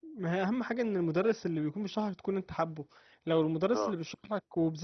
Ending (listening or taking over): listening